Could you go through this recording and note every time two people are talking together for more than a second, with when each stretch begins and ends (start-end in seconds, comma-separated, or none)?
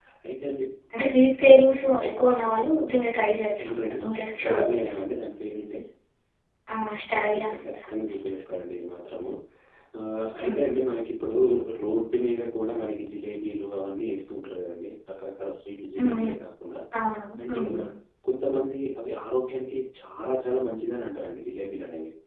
3.3-4.9